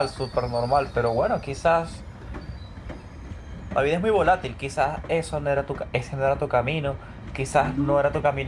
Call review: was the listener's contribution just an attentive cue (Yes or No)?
Yes